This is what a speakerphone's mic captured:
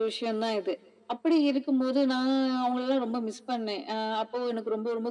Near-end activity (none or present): none